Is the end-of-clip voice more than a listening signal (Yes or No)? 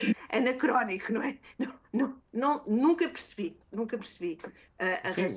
Yes